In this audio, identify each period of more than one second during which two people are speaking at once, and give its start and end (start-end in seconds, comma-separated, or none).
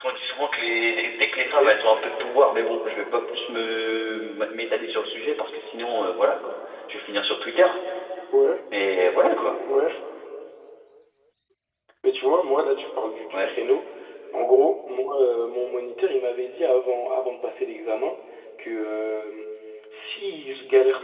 none